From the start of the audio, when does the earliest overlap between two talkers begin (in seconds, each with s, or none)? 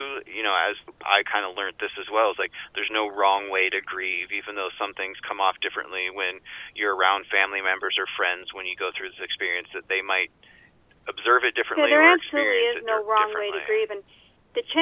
11.8 s